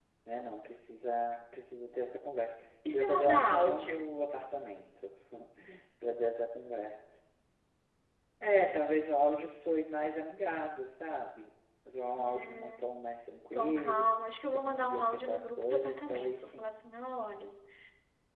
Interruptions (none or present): present